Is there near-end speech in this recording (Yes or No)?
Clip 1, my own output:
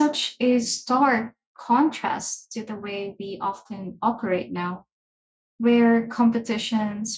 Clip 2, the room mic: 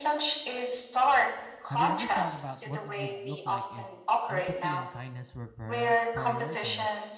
Yes